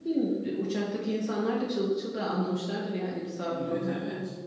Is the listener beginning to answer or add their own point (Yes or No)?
Yes